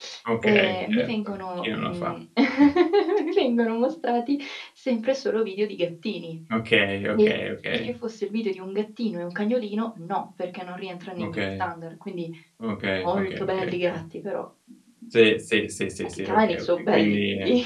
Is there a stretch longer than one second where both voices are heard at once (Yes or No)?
Yes